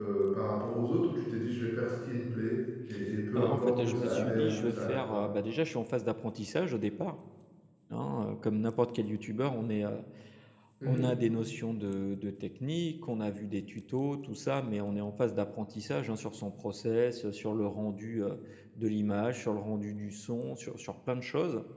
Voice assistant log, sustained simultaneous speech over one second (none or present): present